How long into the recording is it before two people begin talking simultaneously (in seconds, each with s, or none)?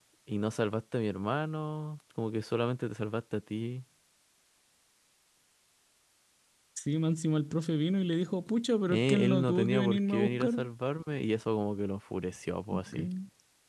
8.9 s